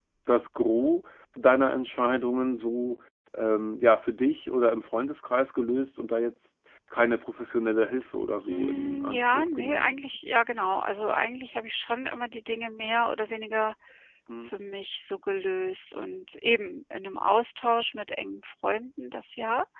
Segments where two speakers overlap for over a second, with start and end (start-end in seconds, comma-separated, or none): 8.5-10.0